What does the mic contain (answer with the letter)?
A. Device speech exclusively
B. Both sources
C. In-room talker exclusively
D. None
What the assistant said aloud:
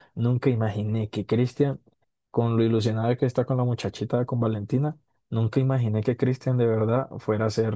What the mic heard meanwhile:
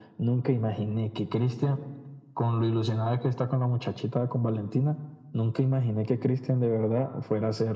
A